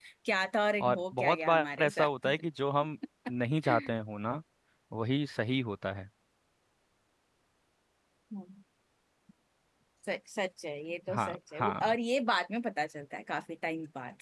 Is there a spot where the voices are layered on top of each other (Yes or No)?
Yes